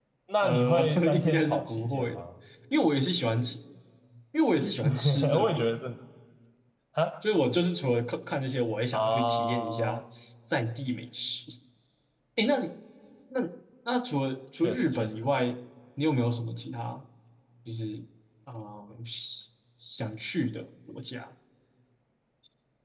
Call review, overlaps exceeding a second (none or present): present